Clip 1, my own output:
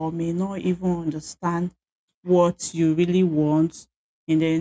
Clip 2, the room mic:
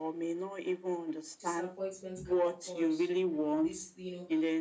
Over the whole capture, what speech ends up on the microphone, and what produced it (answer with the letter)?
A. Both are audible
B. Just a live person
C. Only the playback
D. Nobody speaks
A